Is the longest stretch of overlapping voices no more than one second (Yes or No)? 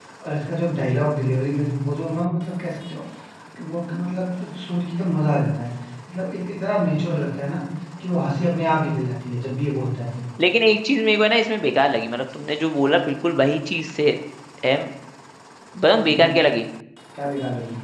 Yes